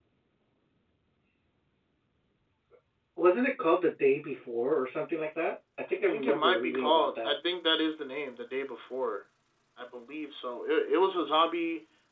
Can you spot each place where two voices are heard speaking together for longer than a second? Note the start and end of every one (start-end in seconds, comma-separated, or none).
6.1-7.3